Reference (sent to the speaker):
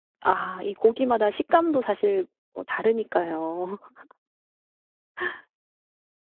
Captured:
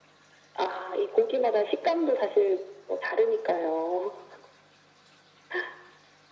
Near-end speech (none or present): none